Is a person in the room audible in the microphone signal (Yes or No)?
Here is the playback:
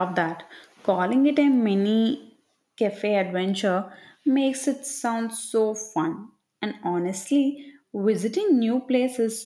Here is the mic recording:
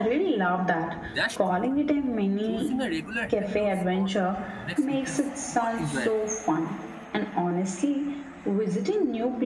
Yes